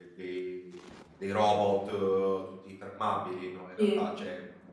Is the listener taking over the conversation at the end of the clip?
No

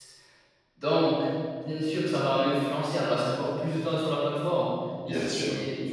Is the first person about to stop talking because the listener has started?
No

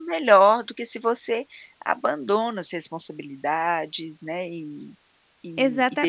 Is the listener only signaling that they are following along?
No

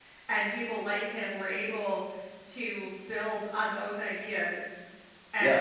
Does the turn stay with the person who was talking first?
Yes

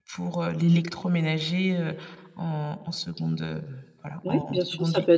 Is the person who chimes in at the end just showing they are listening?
No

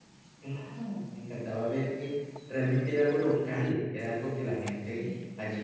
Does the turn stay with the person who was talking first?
Yes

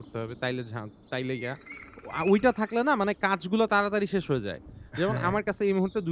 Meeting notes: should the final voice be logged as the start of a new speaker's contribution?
No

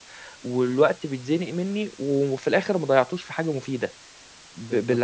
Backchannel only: No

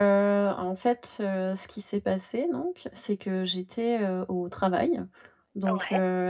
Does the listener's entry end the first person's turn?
No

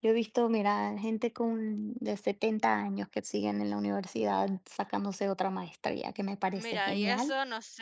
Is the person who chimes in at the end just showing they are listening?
No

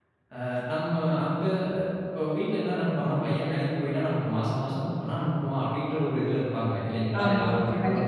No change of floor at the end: No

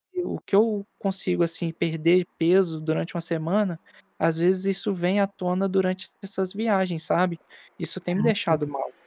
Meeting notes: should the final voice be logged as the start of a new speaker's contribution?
Yes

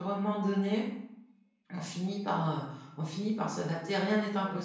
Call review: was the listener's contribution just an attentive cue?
No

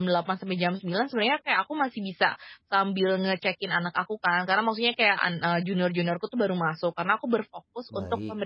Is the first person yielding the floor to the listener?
No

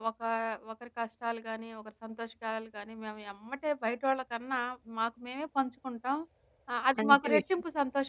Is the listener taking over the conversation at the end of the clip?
No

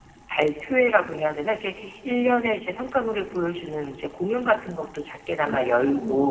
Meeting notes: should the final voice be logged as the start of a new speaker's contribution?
No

